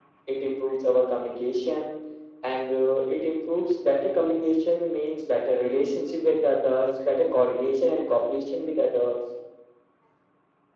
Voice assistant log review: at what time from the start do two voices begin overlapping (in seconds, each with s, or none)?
none